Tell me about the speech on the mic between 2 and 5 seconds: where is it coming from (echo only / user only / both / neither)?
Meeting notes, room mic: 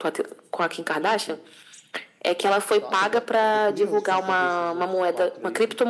both